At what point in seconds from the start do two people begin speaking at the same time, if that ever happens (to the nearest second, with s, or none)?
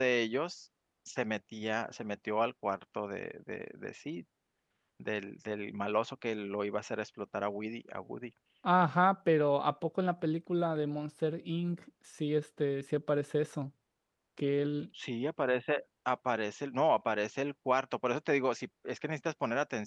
none